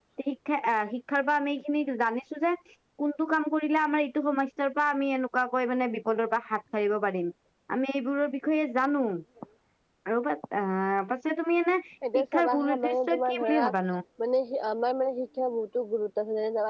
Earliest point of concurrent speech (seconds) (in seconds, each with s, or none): 12.0 s